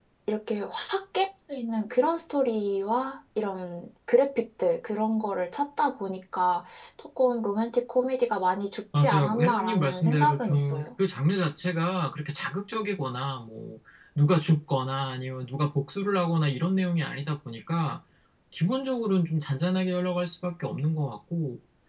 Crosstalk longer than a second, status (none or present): present